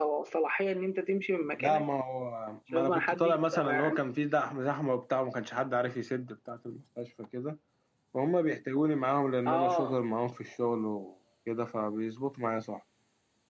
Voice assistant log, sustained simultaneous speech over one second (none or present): present